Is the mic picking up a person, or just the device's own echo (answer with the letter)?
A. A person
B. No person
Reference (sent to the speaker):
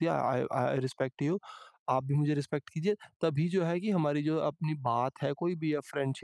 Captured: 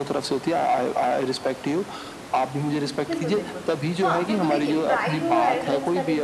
A